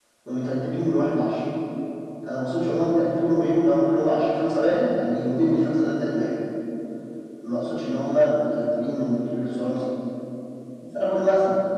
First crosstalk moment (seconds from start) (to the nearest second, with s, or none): none